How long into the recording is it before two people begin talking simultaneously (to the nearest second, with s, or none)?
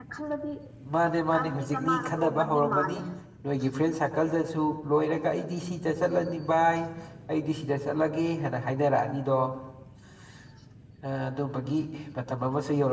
1 s